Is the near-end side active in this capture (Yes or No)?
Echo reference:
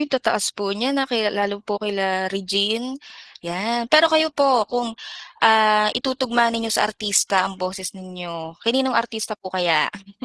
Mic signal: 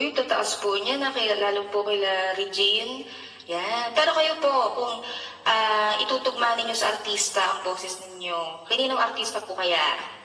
No